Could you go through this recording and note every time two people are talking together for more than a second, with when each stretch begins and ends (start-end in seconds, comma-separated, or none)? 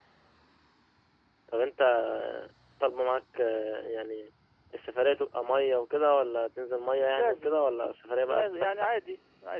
7.0-8.9